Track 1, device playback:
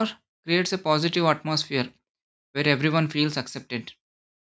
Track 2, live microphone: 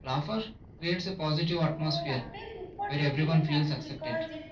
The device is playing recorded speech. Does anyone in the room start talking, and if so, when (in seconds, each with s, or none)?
1.5 s